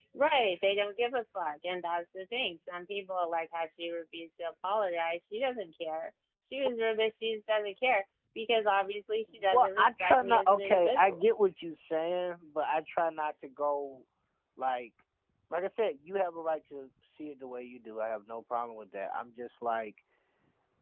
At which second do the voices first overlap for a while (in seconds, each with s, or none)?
9.4 s